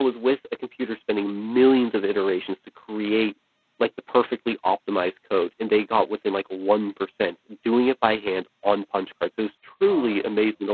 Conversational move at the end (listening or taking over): listening